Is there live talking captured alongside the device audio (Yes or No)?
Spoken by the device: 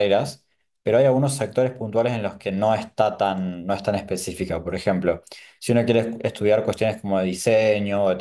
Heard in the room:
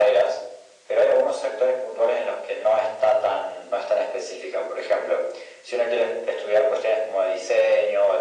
No